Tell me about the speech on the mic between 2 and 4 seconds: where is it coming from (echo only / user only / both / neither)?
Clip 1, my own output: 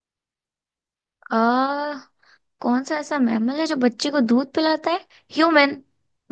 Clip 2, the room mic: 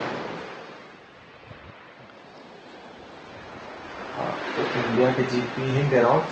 neither